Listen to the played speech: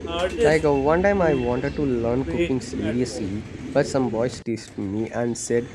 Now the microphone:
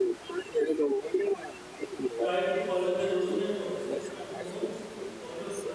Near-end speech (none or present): present